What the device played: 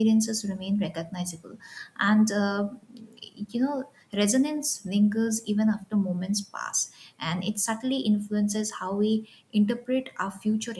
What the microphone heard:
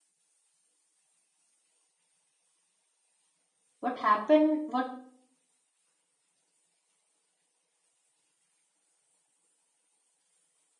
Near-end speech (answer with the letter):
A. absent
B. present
B